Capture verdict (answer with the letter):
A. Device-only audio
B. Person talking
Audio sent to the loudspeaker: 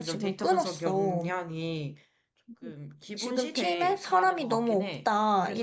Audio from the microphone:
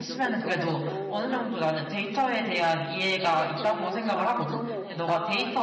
B